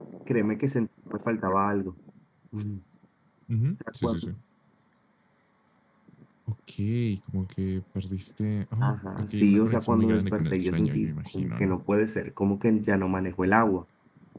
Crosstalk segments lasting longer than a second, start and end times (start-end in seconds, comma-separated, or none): 8.8-11.8